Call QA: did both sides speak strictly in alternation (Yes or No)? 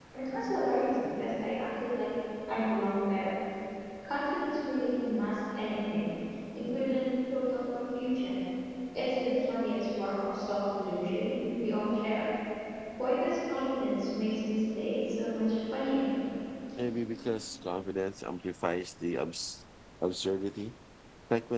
Yes